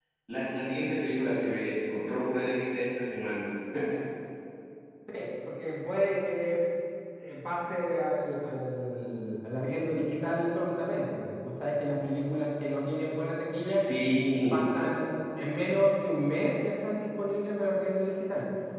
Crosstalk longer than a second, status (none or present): none